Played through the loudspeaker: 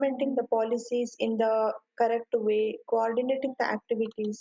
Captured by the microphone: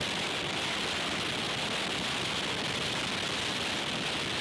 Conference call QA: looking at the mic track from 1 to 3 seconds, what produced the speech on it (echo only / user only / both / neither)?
neither